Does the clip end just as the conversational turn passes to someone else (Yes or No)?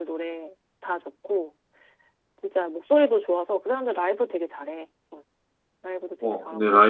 Yes